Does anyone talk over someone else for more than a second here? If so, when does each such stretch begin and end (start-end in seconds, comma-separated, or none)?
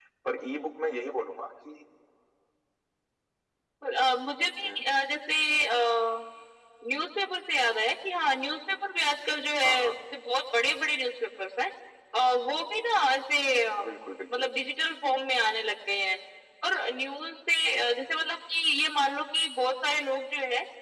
none